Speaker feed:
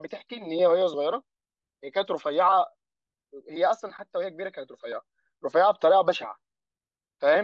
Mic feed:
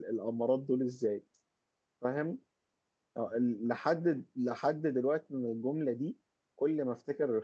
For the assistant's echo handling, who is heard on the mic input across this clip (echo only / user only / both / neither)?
user only